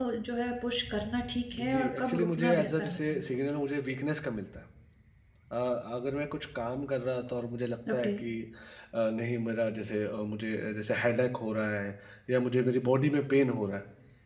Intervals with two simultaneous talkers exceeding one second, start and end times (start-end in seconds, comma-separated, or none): 1.5-3.2